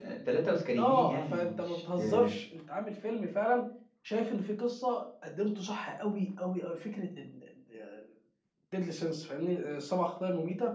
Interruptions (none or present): present